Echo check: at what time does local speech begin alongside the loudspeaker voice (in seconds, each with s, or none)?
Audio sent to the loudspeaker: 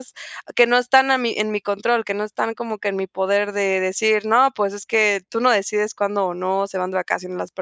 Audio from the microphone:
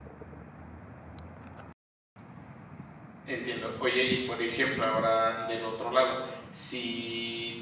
3.2 s